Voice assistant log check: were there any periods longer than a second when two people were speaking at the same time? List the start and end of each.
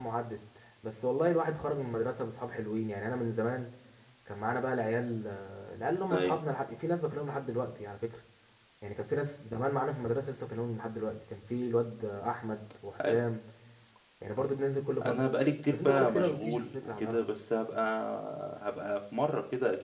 15.7-17.2

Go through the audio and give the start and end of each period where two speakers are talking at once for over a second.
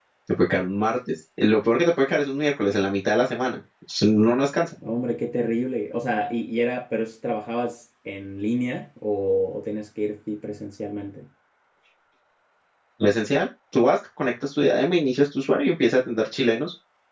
none

